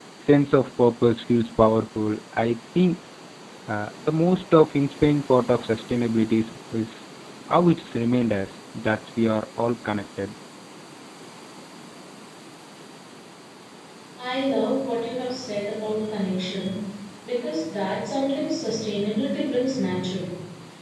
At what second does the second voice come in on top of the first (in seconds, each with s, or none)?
none